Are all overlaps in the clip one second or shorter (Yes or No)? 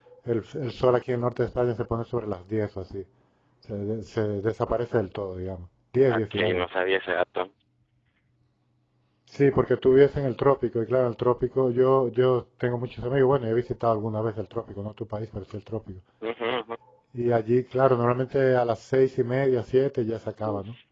Yes